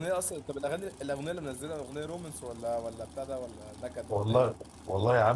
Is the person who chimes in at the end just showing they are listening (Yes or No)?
No